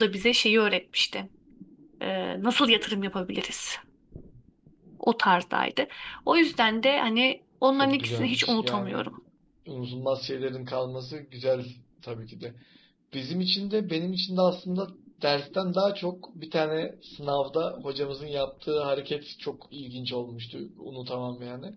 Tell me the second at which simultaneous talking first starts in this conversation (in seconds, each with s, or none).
7.7 s